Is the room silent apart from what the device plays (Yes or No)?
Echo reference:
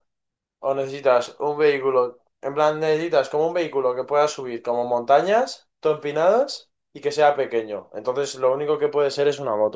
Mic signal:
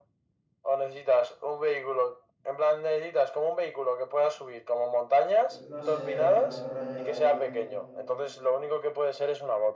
No